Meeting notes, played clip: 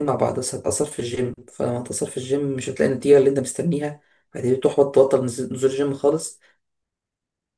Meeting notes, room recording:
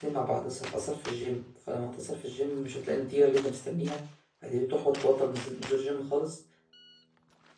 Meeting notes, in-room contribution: none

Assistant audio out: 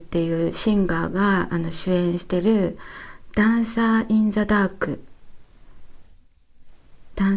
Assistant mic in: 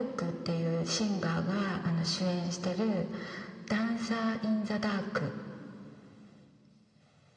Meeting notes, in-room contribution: none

